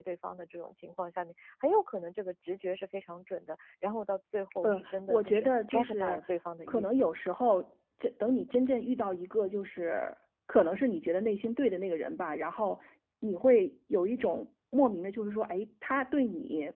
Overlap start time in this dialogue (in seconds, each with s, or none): 4.6 s